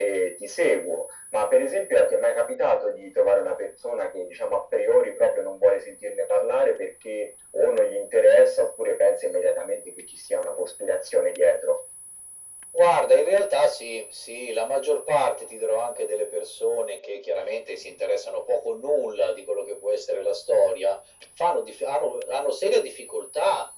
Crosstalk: none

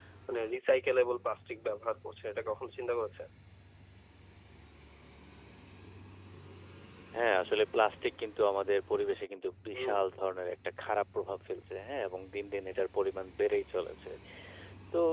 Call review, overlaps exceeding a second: none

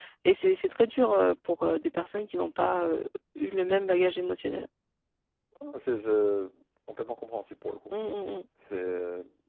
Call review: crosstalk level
none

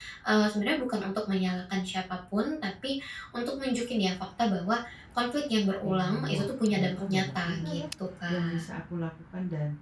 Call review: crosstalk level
present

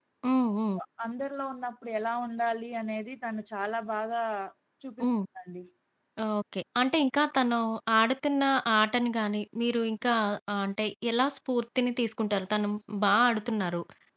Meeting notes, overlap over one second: none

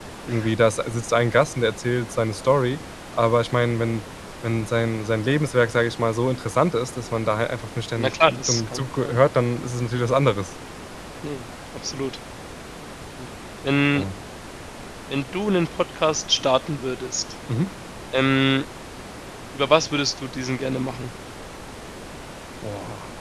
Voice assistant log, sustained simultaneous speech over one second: present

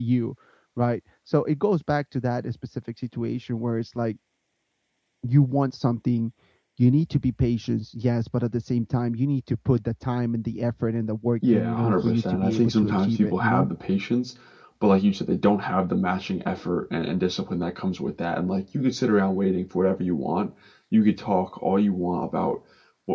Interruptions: present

